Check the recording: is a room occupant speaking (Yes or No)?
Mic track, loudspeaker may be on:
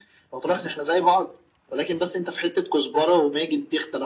No